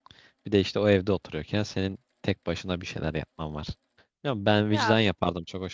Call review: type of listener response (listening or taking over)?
listening